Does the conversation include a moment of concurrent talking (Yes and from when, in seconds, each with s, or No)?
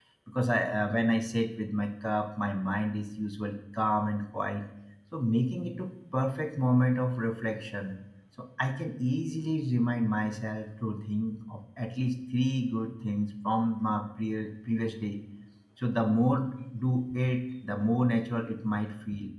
No